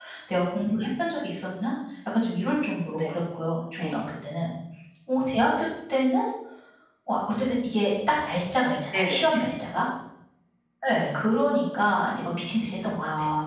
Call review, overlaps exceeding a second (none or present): none